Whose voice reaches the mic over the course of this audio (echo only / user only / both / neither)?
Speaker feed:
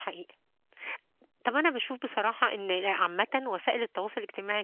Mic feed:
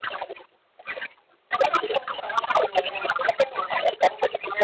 echo only